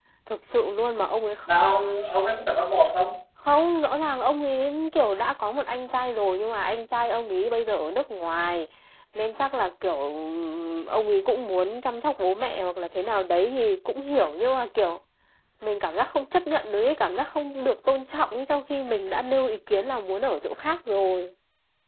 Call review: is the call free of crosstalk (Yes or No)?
Yes